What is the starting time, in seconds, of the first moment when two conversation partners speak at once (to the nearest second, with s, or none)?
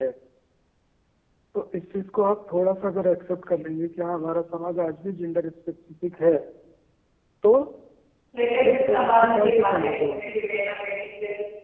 9 s